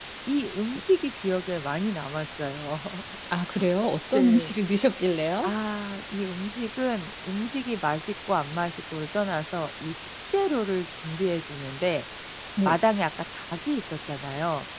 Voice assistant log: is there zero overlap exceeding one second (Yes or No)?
Yes